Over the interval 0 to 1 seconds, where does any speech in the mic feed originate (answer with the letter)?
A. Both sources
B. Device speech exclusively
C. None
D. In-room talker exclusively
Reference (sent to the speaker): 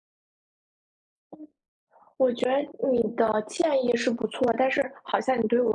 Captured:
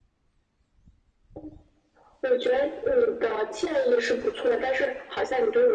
C